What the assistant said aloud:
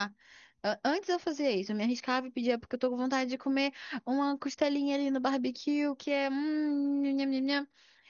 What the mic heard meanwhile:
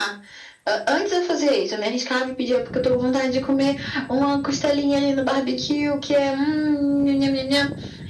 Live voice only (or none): none